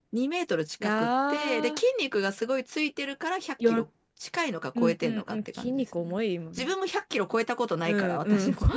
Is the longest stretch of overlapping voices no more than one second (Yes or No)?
No